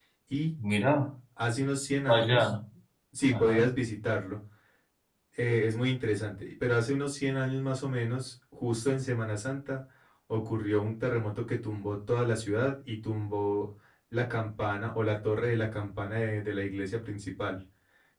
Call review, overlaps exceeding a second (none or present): none